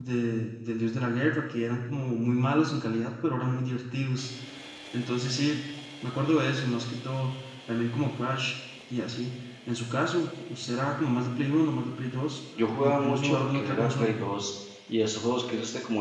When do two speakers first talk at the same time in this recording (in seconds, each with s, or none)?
12.6 s